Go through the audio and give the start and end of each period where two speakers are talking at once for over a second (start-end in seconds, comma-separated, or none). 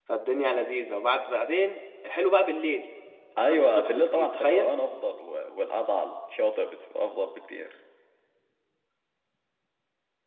3.4-4.7